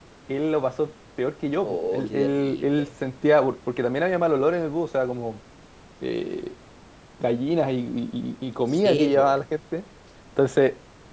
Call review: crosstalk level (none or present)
present